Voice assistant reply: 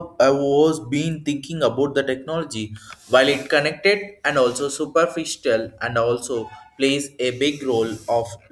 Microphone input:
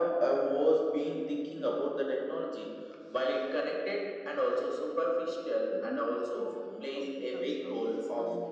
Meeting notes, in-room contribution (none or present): present